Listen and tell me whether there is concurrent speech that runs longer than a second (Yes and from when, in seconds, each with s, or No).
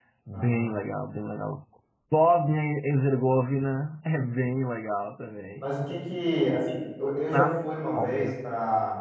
No